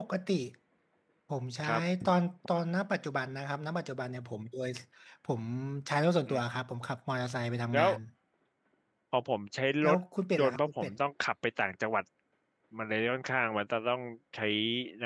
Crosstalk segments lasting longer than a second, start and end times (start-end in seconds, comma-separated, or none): none